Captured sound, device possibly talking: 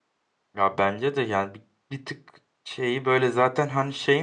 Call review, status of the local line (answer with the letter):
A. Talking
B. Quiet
A